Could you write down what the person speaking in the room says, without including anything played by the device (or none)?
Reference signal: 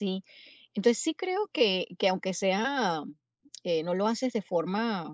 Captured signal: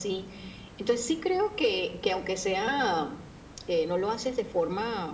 none